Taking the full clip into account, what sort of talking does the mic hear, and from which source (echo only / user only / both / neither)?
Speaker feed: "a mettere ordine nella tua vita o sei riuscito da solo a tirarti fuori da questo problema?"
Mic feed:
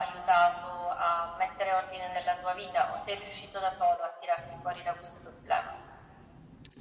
echo only